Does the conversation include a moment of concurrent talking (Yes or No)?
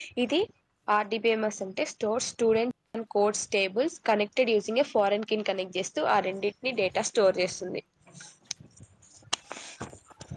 No